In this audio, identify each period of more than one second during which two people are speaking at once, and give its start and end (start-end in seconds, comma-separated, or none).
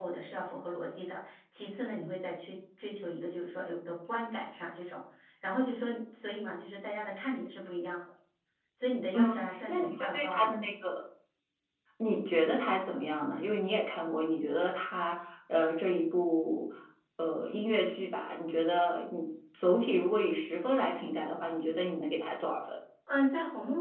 9.1-10.5